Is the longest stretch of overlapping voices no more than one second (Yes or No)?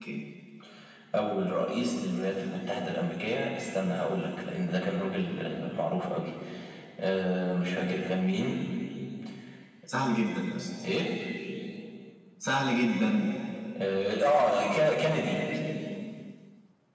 Yes